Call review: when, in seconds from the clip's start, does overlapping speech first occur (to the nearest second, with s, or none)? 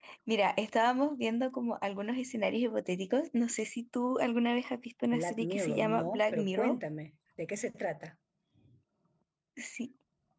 5 s